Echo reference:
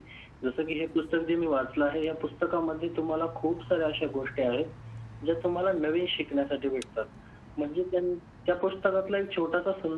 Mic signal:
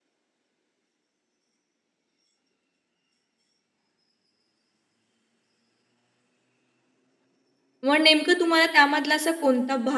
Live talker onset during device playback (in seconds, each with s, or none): 7.8 s